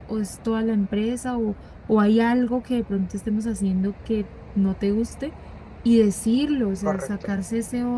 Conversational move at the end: listening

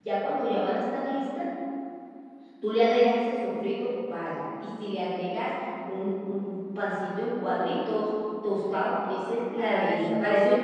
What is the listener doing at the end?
taking over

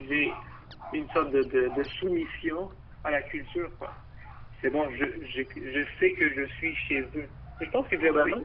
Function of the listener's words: listening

